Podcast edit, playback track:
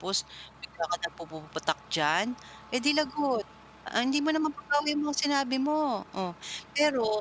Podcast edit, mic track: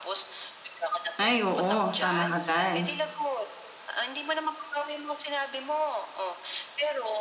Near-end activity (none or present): present